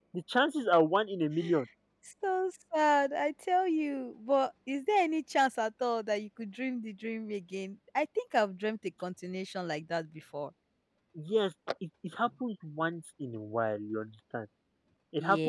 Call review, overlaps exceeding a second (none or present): none